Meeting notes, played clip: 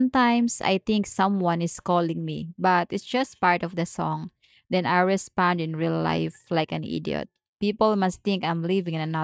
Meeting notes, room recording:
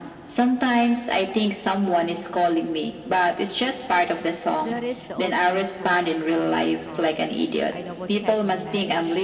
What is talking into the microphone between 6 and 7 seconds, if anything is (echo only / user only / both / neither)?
both